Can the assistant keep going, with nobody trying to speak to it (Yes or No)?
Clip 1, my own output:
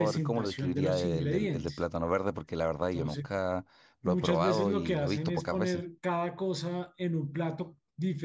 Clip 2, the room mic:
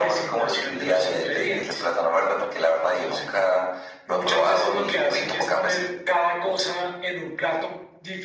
Yes